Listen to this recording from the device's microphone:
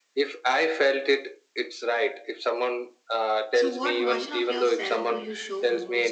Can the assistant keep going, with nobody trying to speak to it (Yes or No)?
No